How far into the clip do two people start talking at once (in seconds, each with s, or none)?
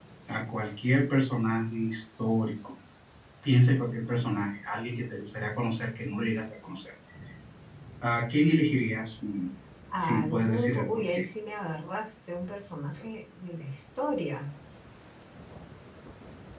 10.0 s